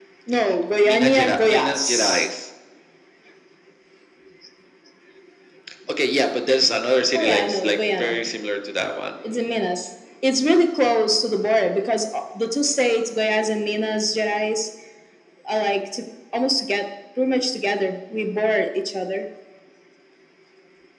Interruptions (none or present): present